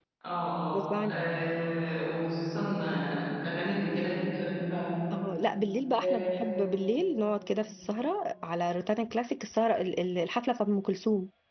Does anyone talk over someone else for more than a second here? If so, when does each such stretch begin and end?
none

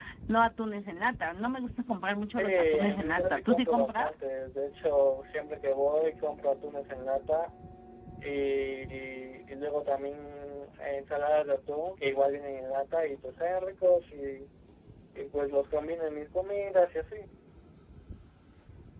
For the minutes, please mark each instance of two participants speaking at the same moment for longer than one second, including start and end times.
2.4-4.1

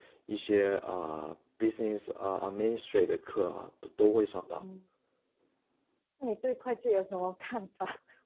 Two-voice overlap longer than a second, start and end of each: none

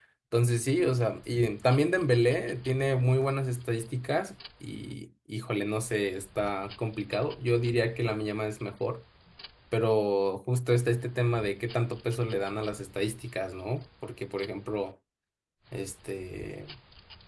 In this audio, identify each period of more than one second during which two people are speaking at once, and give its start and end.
none

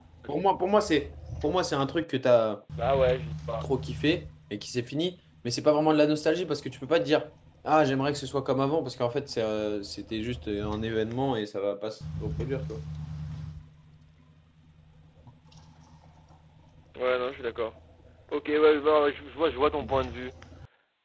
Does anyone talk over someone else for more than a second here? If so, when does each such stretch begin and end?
none

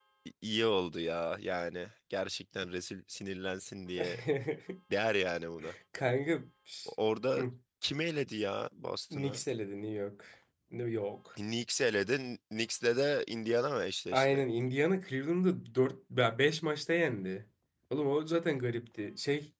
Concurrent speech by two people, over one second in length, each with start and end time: none

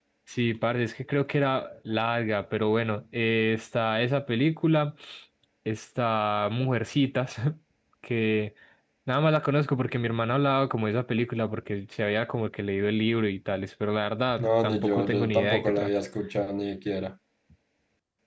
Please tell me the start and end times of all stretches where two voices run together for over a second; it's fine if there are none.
14.4-15.9

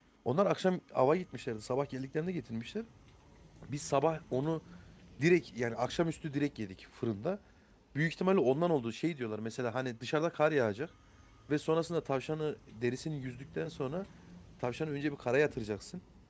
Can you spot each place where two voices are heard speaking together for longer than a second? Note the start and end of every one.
none

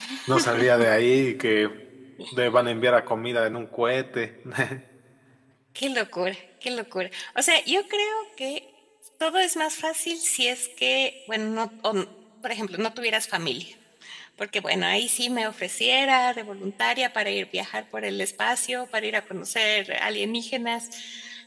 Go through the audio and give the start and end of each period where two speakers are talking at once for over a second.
none

